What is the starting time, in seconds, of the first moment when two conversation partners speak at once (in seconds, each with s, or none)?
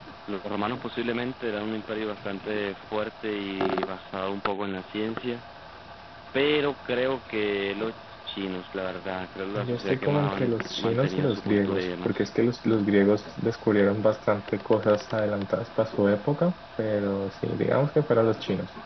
9.6 s